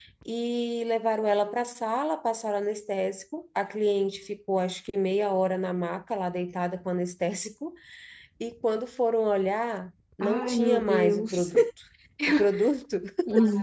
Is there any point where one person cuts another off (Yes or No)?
Yes